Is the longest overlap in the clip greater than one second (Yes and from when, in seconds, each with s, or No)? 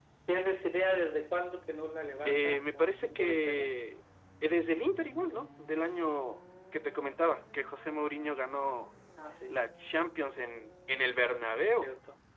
Yes, from 2.2 s